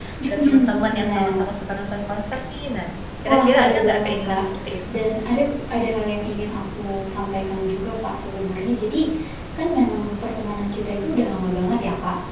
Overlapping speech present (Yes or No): Yes